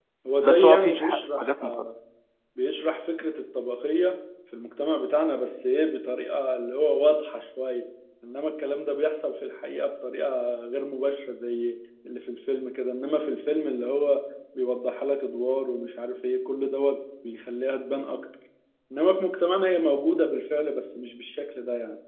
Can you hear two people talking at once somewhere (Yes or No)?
Yes